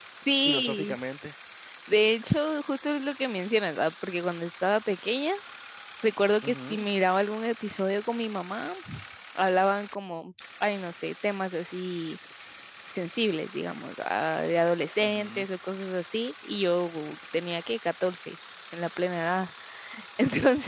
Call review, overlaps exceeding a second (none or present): none